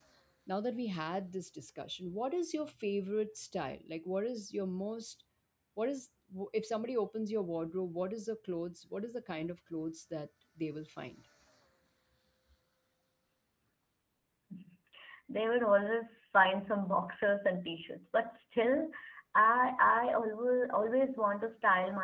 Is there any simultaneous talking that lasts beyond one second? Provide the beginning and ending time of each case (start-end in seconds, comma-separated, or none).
none